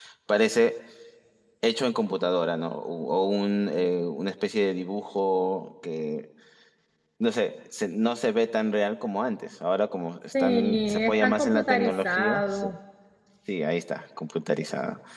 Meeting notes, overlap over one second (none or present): present